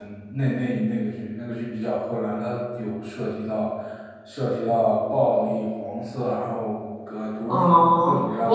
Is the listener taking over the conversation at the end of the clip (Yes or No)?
Yes